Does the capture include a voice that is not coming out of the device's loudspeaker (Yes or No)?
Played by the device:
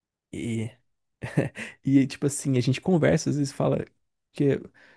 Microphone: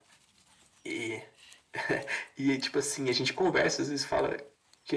No